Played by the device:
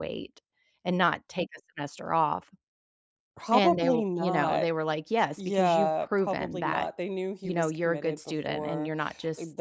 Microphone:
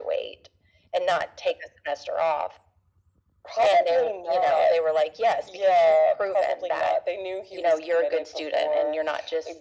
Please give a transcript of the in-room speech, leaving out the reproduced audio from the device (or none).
none